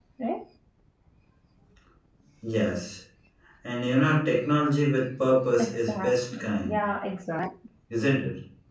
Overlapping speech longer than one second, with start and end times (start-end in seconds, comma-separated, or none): 5.6-6.8